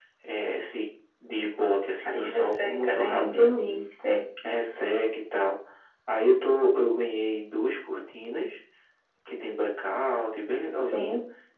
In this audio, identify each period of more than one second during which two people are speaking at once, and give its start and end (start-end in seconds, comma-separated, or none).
2.0-3.5